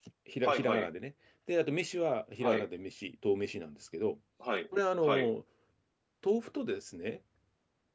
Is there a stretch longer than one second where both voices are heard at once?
No

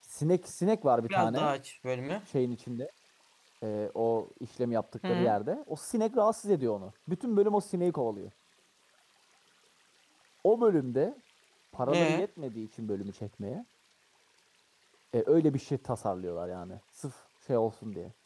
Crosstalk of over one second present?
No

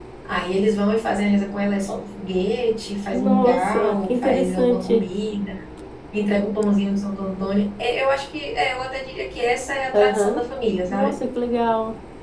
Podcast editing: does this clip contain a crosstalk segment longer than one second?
Yes, from 3.1 s

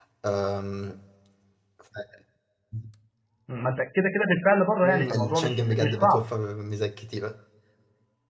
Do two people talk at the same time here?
Yes, from 4.8 s

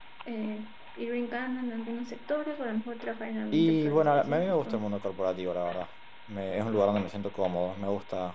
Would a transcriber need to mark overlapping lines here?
Yes, from 3.5 s

